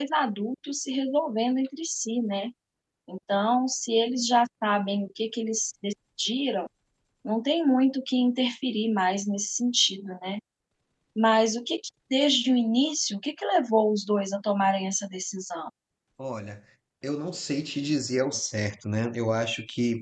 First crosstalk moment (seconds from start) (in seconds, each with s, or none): none